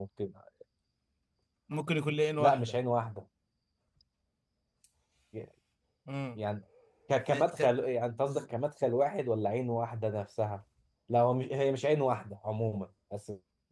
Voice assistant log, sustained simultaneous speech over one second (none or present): none